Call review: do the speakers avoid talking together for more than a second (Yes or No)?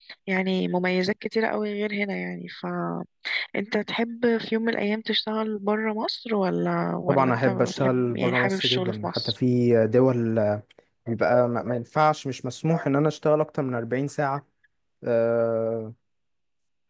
No